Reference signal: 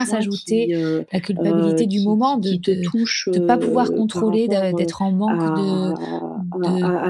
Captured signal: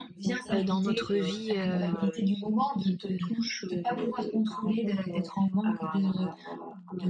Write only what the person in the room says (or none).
heu, dans notre vie, heu,